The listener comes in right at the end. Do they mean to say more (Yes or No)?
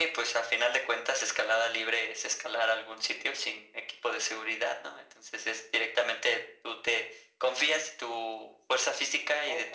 Yes